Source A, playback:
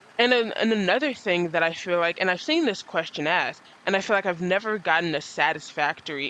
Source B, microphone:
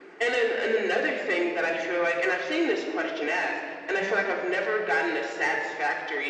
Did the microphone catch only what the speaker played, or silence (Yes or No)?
No